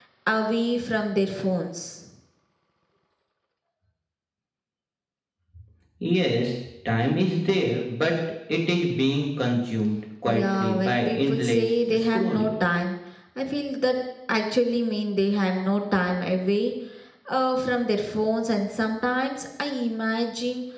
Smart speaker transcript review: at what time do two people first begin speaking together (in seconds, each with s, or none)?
10.2 s